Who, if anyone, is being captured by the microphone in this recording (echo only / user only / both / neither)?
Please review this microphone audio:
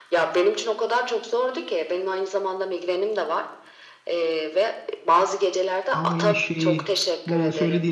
both